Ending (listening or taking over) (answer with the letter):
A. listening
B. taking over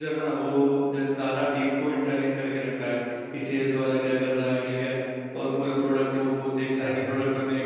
A